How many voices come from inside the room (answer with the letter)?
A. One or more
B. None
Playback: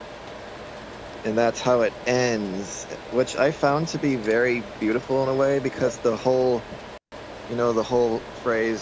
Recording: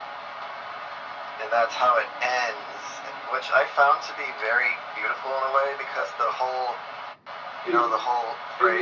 A